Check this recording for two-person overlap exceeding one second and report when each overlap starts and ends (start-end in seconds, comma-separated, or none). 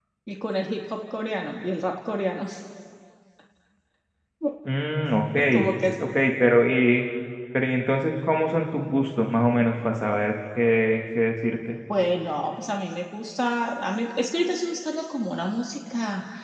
none